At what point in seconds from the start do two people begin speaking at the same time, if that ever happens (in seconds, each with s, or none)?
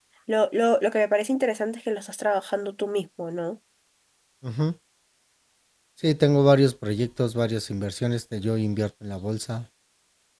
none